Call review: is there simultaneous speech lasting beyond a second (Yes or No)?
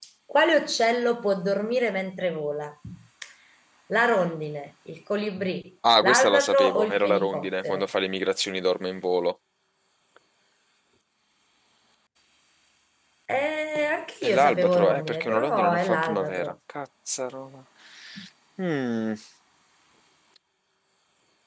Yes